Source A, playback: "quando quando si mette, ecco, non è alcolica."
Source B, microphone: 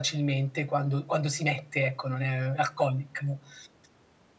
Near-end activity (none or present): none